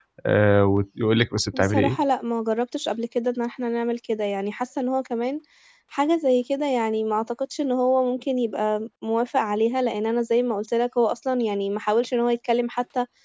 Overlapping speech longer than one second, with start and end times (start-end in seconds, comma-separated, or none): none